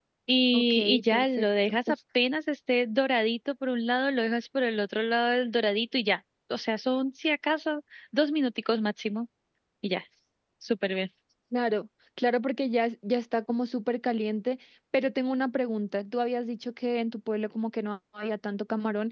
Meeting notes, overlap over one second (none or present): present